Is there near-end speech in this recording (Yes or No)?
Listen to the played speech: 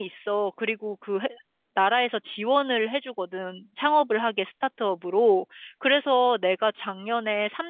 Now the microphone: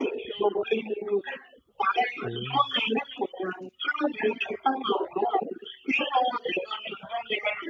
Yes